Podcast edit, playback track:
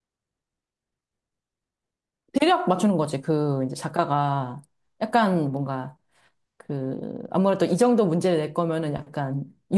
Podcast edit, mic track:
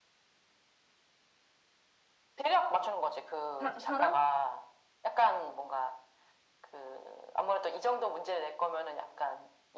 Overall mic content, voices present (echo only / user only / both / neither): both